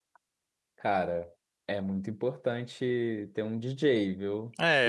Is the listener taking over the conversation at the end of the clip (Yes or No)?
Yes